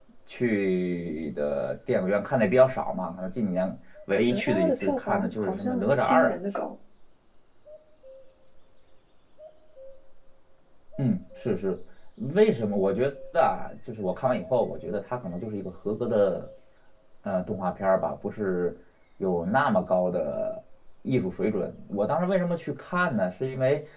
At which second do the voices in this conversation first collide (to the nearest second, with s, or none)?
4 s